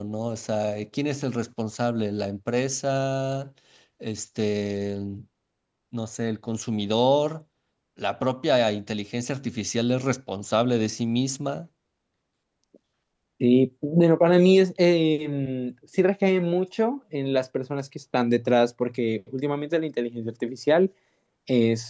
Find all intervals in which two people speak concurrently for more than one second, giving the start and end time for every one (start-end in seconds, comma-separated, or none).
none